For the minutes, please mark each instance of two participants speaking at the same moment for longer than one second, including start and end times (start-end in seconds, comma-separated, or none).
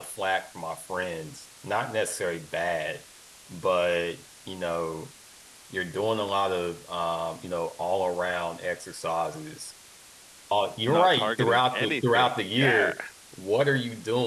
10.9-12.9